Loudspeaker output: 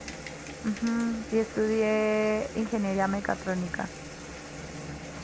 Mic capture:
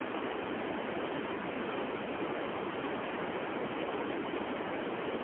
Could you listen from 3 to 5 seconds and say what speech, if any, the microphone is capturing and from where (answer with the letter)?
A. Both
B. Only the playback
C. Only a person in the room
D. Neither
D